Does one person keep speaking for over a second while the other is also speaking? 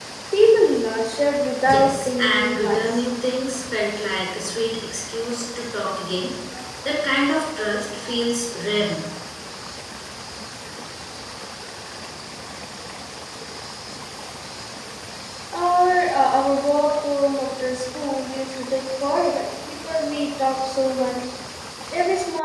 Yes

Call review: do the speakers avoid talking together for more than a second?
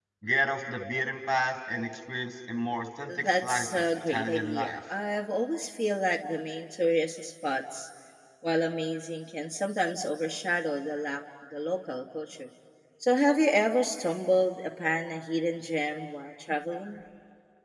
No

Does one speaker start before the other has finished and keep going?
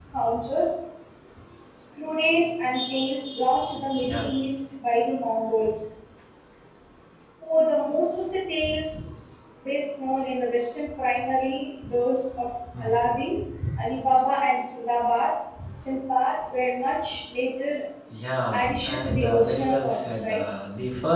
Yes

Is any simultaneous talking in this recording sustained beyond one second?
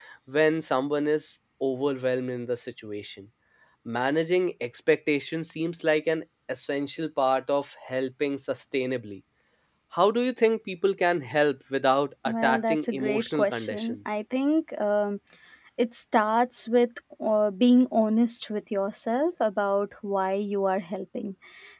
Yes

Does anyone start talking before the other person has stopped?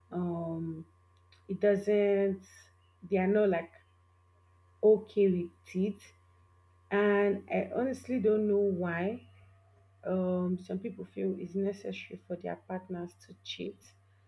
No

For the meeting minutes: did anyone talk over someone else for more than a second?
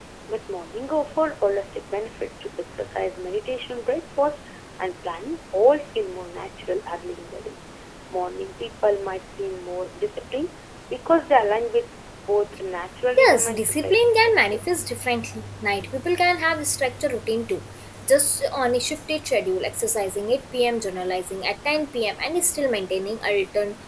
Yes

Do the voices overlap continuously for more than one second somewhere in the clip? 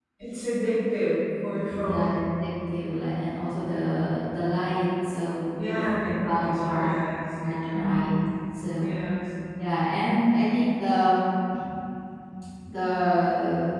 Yes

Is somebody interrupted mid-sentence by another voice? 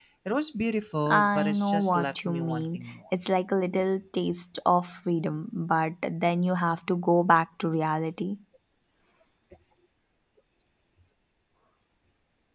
Yes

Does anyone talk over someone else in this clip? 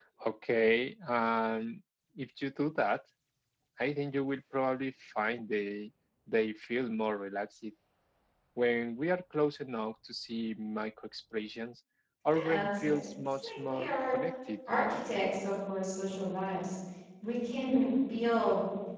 Yes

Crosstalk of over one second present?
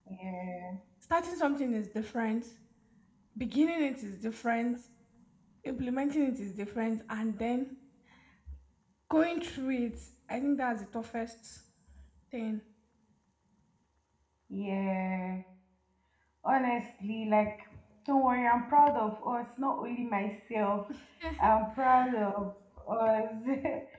No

